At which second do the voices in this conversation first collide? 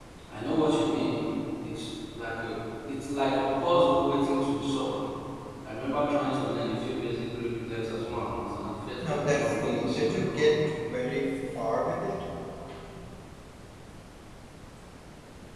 9.0 s

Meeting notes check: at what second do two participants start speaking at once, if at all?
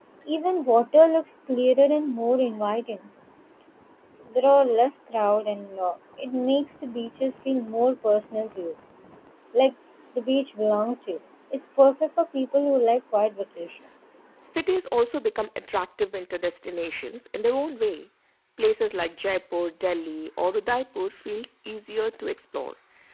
none

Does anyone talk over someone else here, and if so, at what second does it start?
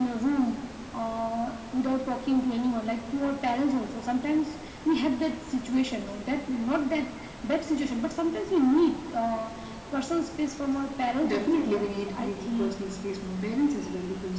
11.2 s

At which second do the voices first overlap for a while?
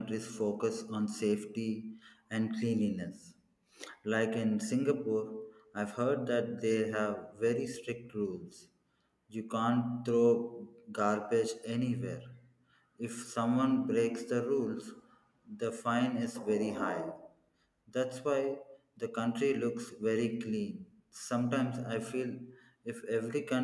none

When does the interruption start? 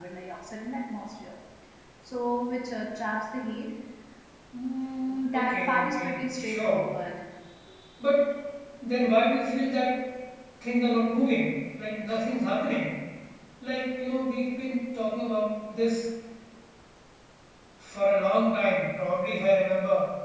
5.3 s

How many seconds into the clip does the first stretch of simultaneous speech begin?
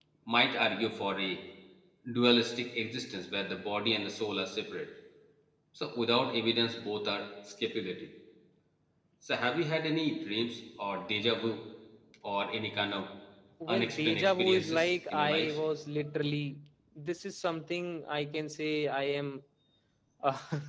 13.7 s

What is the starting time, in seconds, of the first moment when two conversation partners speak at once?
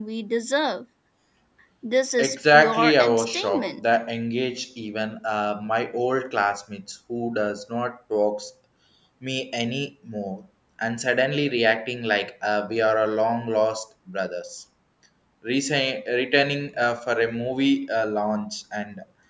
2.2 s

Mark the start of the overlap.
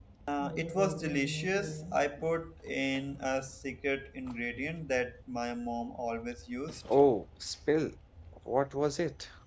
none

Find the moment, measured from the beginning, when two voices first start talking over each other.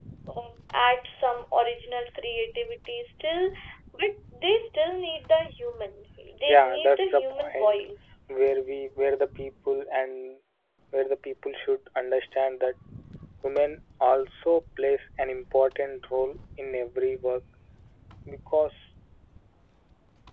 6.5 s

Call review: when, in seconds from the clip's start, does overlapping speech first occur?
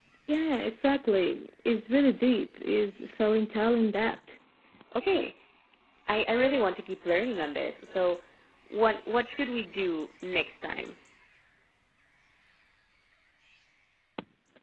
none

